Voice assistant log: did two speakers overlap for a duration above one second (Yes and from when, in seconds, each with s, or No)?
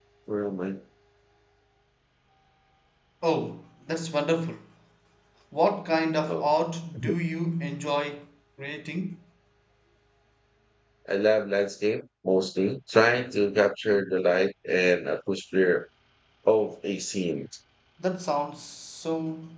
No